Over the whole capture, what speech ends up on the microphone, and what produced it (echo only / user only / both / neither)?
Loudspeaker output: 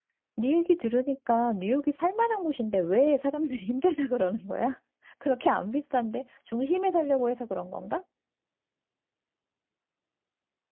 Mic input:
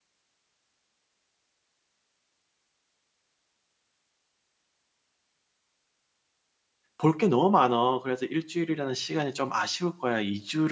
user only